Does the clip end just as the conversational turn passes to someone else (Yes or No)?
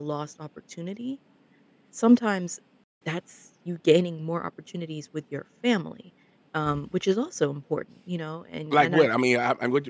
Yes